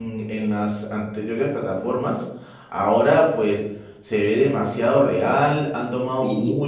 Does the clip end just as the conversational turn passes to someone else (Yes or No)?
No